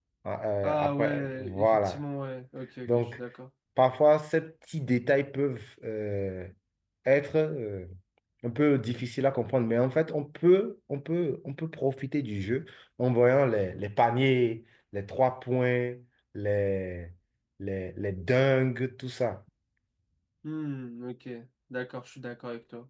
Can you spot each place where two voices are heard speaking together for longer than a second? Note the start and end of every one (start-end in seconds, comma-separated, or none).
0.6-2.0